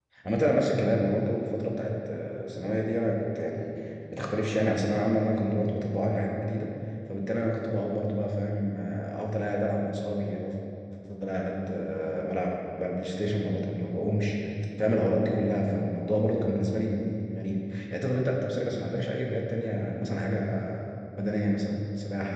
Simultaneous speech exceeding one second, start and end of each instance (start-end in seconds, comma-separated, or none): none